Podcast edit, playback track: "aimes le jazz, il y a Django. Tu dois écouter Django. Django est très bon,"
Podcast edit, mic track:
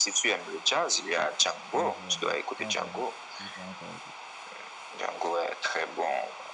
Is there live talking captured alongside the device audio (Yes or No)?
Yes